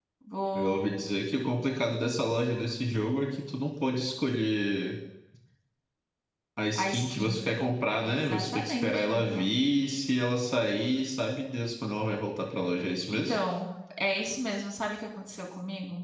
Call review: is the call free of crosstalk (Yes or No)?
No